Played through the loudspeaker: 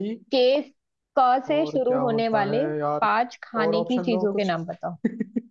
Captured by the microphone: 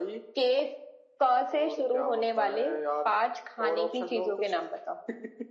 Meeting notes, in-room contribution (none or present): none